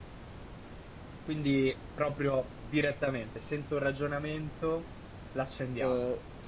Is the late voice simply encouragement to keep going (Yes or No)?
No